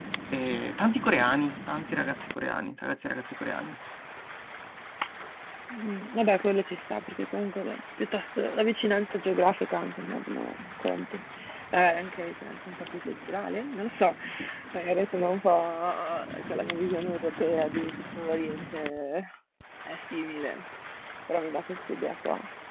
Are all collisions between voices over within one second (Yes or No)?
Yes